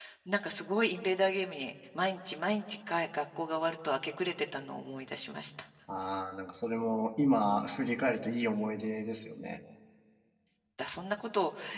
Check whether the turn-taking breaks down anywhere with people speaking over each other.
No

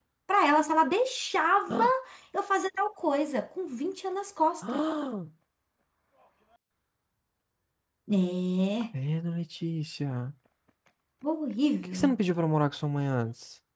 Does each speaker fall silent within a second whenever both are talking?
Yes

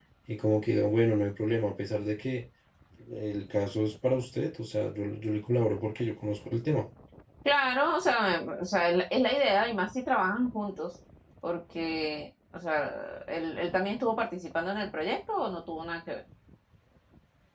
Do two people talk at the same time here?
No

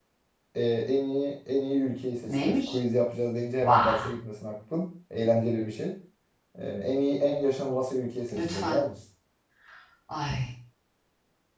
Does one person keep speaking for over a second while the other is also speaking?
No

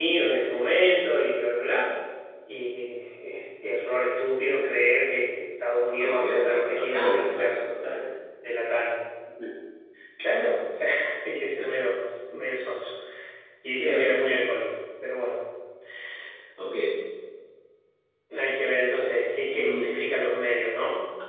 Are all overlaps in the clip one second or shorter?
No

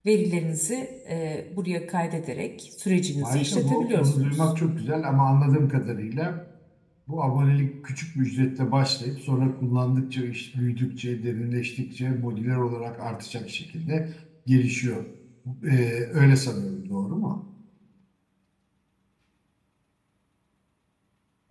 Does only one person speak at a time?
No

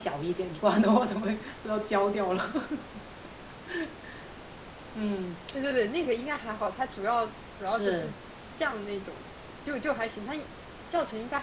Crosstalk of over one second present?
No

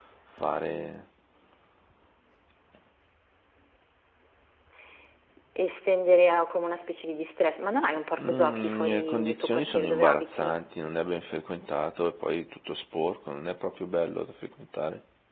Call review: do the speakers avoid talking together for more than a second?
No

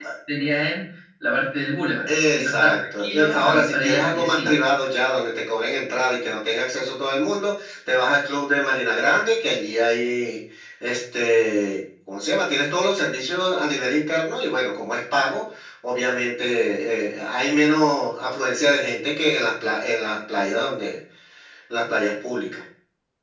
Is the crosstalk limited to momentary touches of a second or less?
No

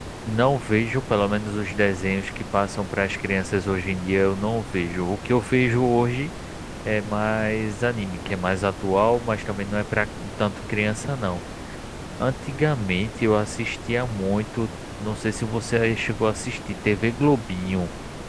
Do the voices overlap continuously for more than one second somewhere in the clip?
No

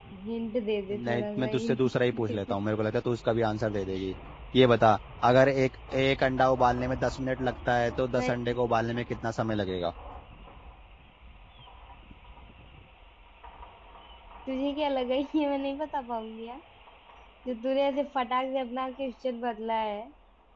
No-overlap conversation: No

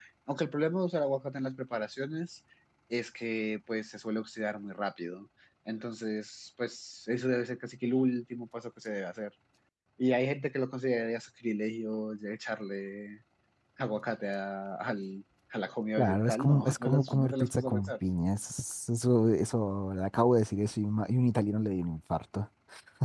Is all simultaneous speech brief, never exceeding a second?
No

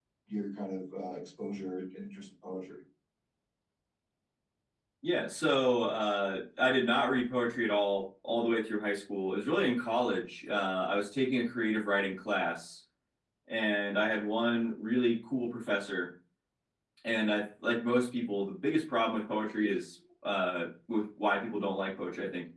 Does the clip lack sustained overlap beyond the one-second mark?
Yes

